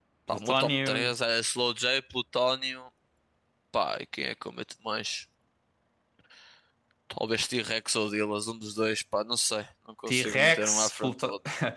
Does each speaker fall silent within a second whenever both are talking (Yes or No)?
No